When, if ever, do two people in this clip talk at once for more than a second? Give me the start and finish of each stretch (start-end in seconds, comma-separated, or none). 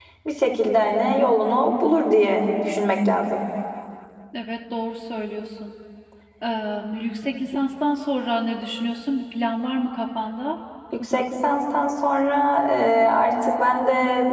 none